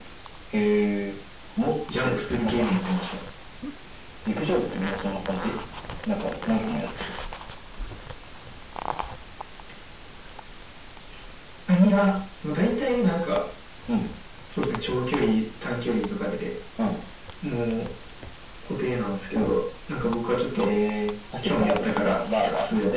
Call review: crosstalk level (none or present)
present